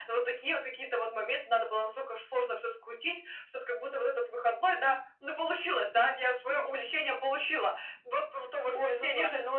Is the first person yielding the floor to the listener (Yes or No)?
Yes